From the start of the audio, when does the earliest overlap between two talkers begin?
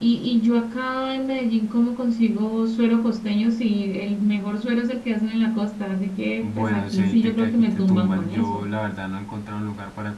6.4 s

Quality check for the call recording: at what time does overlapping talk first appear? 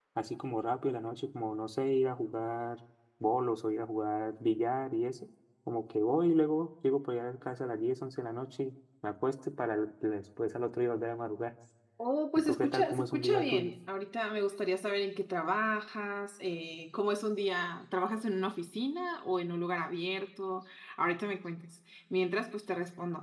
12.3 s

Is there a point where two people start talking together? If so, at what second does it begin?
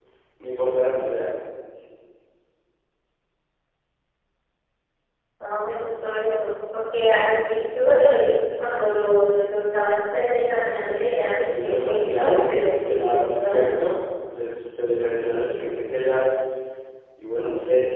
11.4 s

